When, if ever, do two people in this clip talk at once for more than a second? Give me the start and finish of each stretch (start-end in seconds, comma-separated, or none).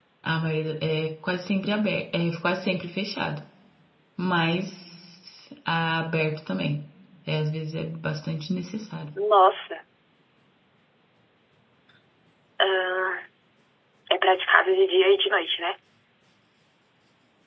none